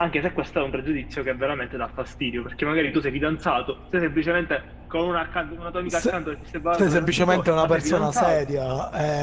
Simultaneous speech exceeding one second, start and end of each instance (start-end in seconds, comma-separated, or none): 6.7-8.4